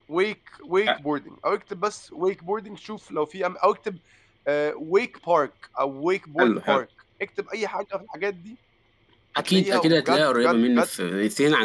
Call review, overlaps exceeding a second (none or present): present